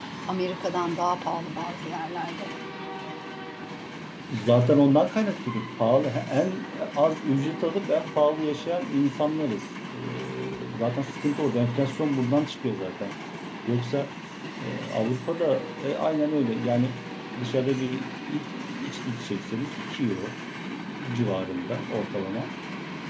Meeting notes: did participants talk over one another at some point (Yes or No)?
No